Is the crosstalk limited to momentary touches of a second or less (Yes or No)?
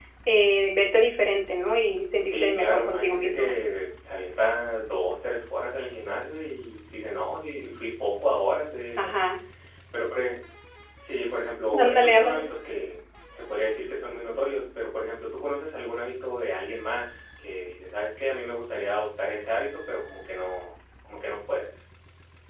No